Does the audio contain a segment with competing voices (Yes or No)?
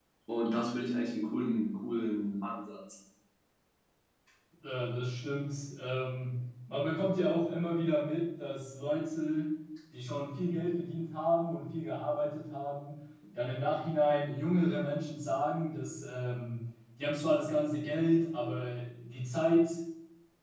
No